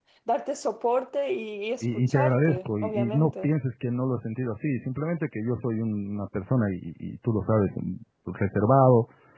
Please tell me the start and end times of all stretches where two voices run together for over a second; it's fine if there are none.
1.8-3.5

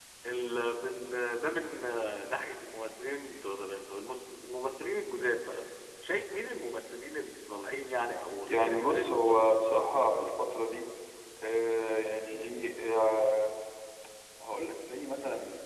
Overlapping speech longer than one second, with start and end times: 8.5-9.7

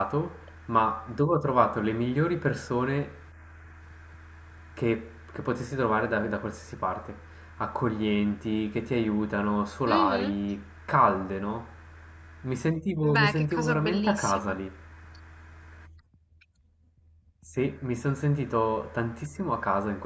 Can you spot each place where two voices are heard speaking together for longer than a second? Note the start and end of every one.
13.0-14.6

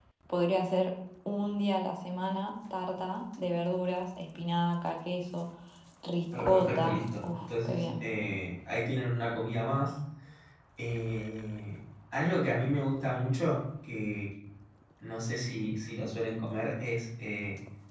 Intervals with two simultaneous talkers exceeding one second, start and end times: 6.4-8.0

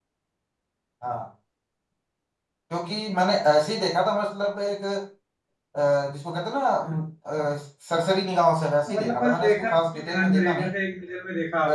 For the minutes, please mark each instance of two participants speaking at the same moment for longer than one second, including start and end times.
8.9-10.7

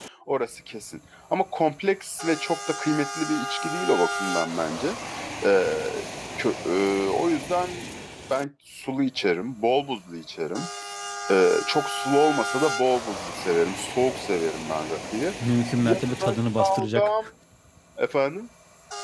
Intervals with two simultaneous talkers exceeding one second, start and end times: 15.8-17.3

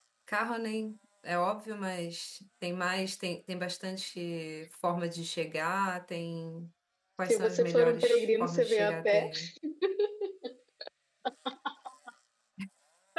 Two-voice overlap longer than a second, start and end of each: 7.3-9.3

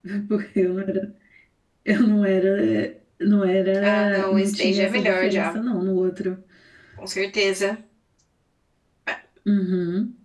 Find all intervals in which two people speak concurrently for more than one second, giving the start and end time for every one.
3.8-5.5

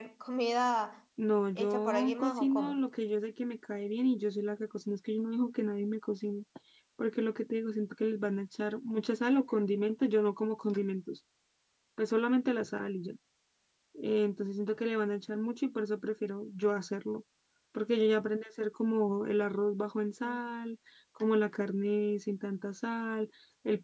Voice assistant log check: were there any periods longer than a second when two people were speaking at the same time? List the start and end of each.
1.6-2.8

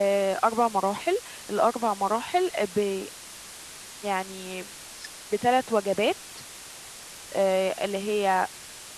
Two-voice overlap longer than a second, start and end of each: none

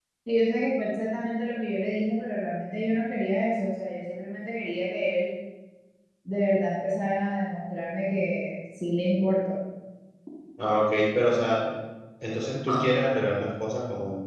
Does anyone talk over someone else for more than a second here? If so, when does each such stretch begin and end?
none

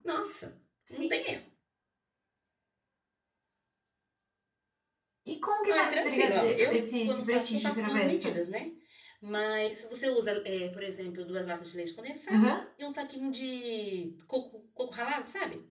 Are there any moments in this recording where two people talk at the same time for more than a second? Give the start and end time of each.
5.7-8.3

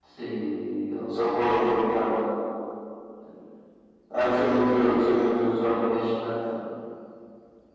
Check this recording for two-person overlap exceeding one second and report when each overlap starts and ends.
4.2-5.9

